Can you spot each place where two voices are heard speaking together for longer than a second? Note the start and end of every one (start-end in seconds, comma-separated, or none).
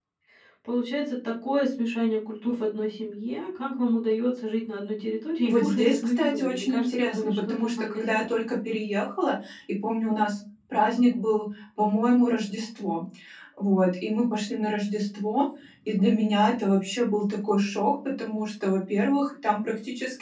5.4-8.4